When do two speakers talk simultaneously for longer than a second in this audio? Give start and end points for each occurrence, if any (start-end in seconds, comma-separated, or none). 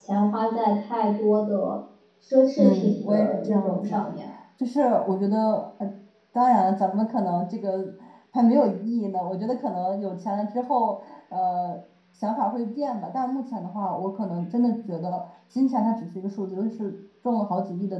2.6-4.1